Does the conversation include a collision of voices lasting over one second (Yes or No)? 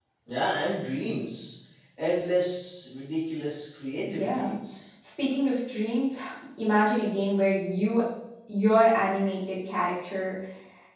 No